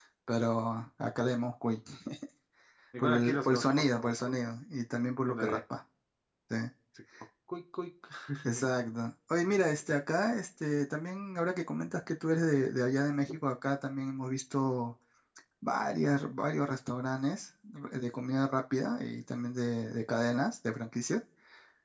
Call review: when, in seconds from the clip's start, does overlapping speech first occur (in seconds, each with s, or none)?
3.0 s